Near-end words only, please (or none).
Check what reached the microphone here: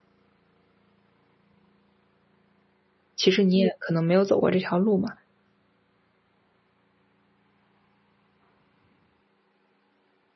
其实你也可能没有走过这条路嘛。